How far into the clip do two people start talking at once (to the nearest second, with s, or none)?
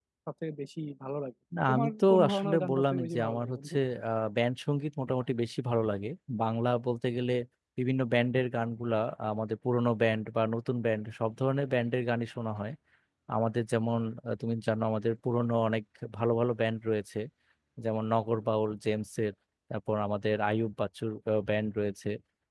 2 s